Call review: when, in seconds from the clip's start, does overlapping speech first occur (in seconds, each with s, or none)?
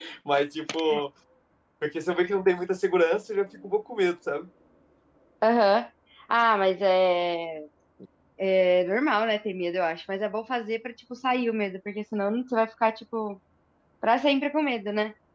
none